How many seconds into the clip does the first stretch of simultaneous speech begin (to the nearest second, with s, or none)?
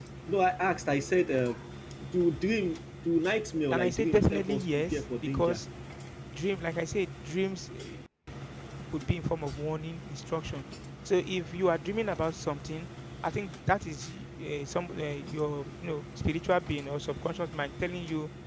4 s